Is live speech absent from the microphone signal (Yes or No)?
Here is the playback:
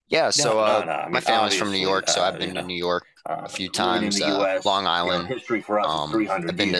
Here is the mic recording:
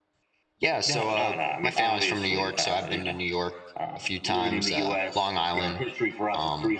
Yes